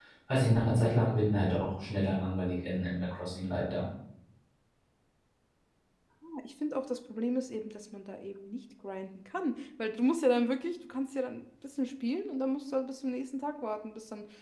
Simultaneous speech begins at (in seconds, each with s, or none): none